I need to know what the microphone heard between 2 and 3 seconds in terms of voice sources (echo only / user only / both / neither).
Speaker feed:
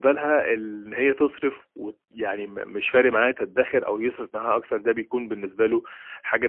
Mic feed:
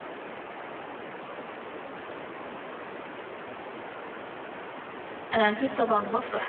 neither